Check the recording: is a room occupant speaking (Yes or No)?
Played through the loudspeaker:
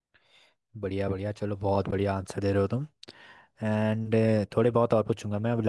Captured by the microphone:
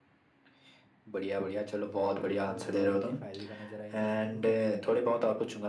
Yes